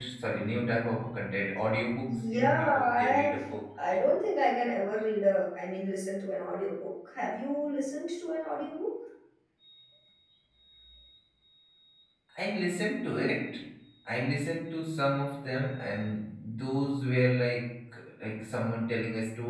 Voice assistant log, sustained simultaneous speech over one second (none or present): present